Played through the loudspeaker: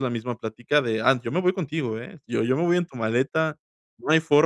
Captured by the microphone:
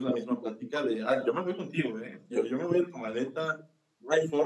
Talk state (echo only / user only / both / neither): echo only